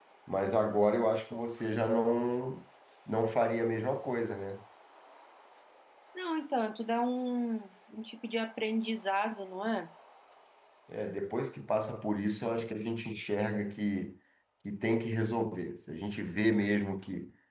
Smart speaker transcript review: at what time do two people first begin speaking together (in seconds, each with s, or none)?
none